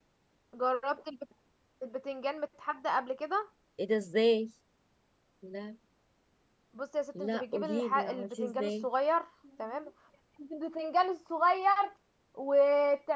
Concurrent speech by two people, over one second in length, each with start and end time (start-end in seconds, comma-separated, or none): 7.2-8.8